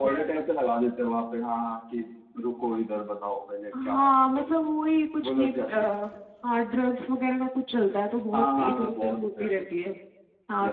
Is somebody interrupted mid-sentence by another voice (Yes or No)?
Yes